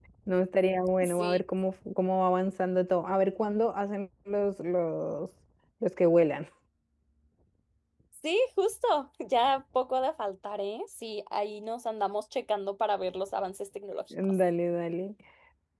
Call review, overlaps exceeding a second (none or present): none